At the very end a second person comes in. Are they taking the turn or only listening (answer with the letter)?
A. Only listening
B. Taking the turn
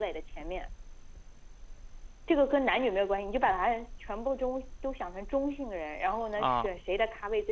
A